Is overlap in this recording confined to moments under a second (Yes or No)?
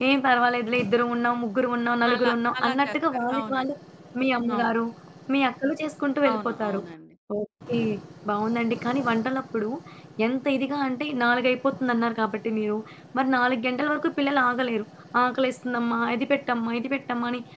No